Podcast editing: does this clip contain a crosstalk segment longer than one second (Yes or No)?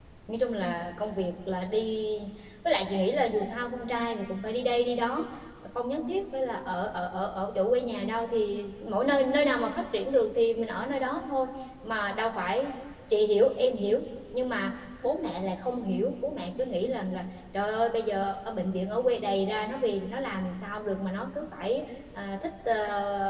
No